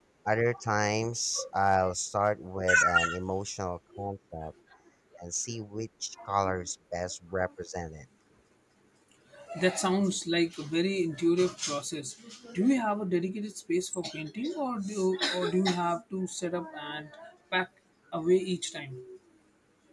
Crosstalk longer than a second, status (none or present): none